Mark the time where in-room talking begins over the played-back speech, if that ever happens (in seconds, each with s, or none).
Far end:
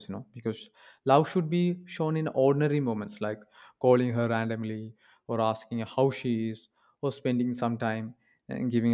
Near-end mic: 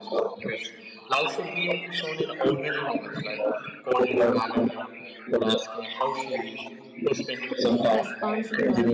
7.6 s